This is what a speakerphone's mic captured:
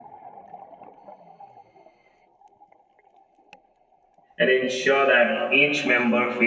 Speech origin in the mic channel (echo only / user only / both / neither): user only